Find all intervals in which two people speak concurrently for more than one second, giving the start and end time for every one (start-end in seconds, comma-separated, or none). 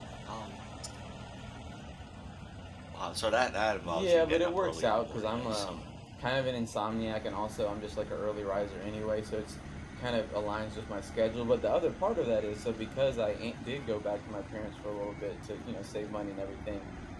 3.9-5.8